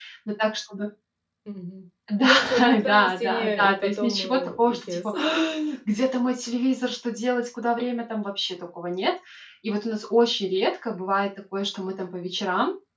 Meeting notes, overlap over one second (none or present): present